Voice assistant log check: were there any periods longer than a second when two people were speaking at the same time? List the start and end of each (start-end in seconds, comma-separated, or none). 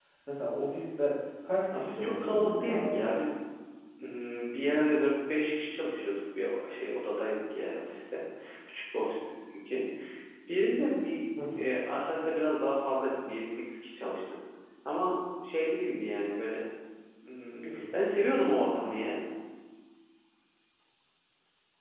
1.7-3.0